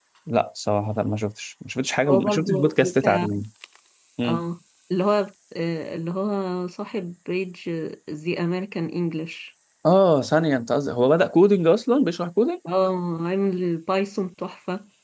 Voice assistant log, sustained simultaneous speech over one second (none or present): present